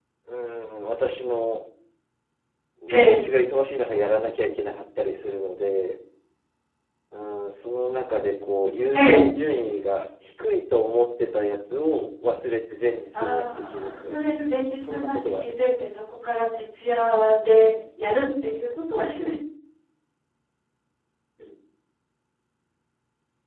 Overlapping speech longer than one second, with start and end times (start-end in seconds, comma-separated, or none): 13.2-15.7